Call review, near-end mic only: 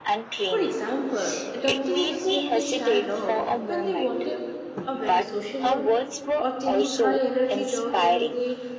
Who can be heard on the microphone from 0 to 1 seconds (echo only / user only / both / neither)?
both